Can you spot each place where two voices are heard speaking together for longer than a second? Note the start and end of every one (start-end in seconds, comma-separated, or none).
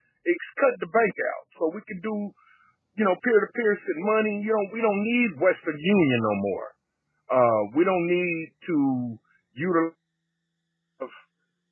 none